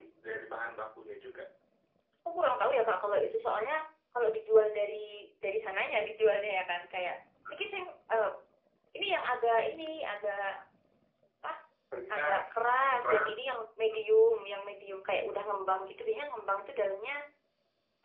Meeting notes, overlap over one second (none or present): none